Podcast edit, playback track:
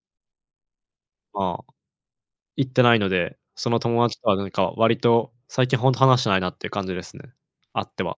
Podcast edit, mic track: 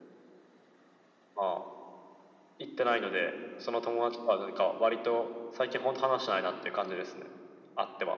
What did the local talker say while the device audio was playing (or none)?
none